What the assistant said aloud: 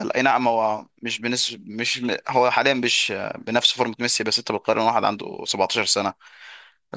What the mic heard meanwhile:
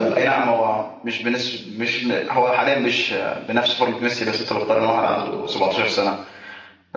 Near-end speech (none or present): none